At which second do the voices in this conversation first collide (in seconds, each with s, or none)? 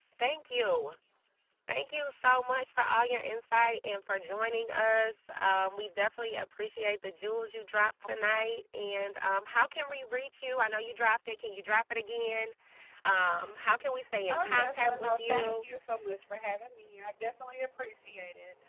14.3 s